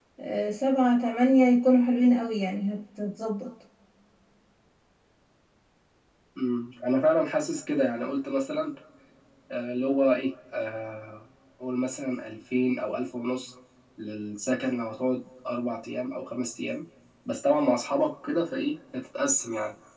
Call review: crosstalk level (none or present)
none